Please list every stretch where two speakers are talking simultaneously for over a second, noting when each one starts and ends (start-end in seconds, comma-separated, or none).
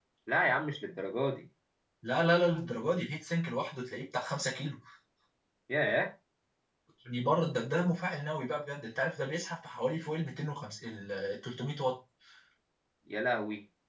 none